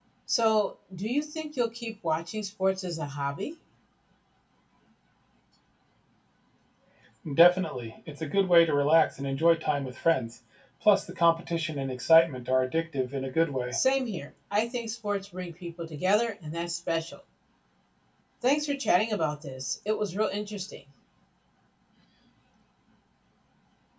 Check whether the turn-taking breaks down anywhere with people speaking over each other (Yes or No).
No